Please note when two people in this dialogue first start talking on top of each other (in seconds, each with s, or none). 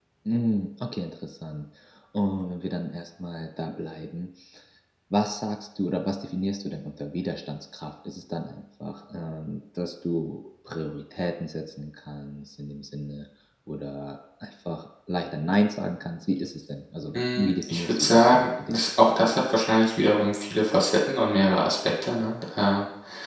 17.1 s